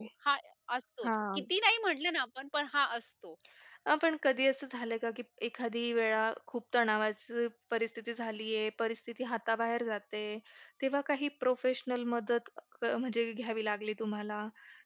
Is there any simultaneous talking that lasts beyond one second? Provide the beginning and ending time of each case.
none

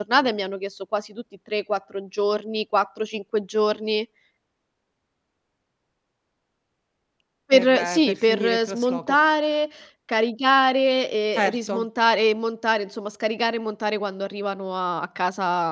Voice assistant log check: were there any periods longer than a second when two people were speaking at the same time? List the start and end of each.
7.5-9.2

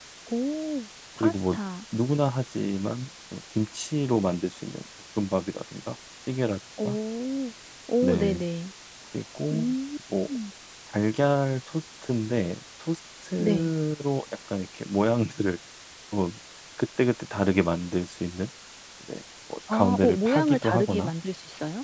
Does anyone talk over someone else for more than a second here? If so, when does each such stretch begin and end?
19.7-21.1

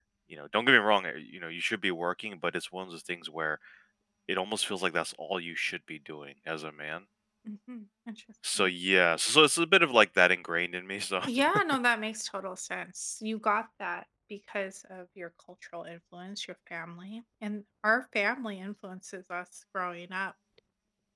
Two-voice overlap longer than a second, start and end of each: none

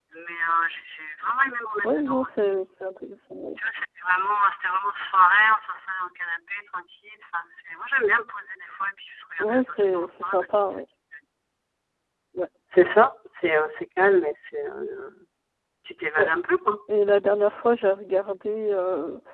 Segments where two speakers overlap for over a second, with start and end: 9.4-10.6

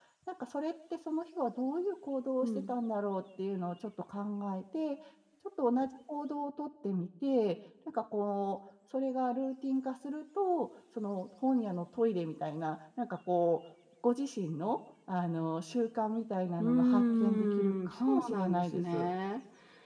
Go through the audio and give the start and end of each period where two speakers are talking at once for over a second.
16.6-19.1

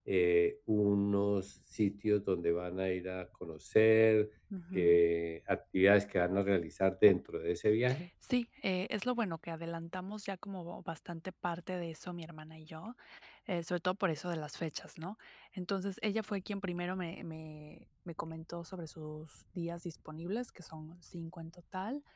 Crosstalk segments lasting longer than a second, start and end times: none

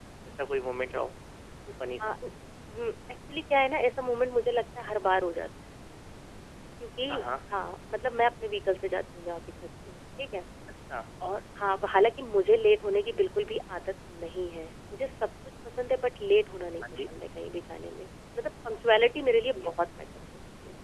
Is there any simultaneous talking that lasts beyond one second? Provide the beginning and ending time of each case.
none

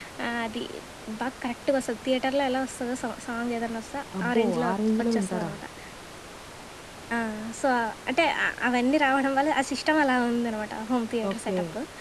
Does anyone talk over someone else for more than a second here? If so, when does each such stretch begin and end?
4.2-5.5

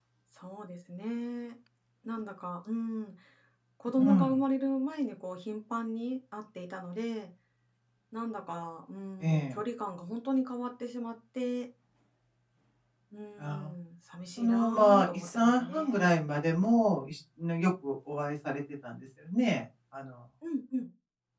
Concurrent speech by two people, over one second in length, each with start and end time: 14.4-16.3

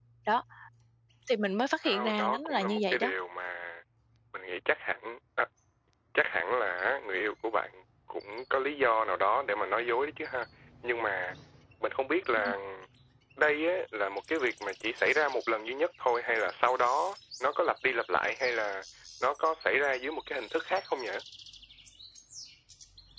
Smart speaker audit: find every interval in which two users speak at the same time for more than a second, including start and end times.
1.8-3.1

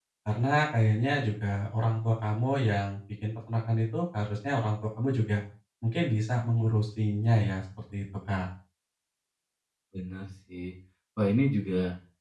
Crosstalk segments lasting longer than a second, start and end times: none

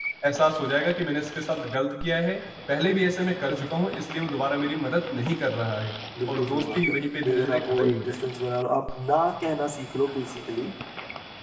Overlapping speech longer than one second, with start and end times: 6.3-8.2

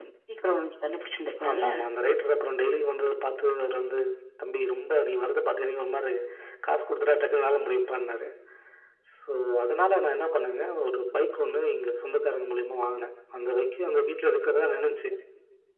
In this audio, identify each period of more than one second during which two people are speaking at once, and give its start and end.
none

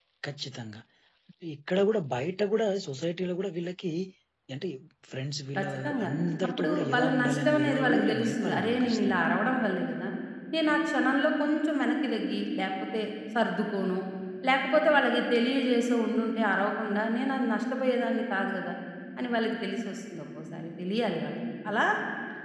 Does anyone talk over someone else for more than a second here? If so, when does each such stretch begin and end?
6.6-9.2

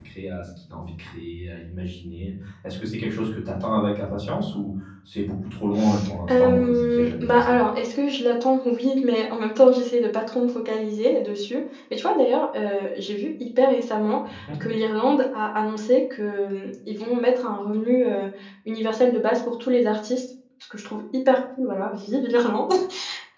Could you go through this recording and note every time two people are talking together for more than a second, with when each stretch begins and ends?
6.3-7.5

